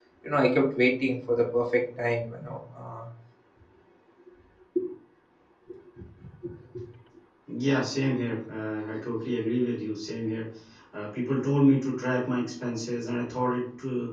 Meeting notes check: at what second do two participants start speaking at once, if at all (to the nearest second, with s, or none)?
none